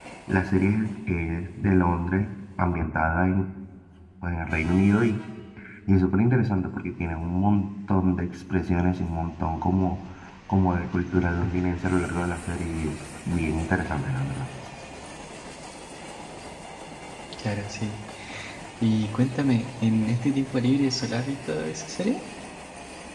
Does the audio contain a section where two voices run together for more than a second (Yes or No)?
No